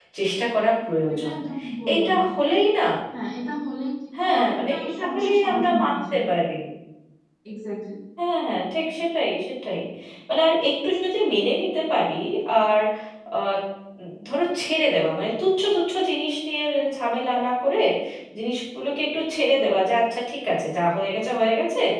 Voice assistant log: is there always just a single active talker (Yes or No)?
No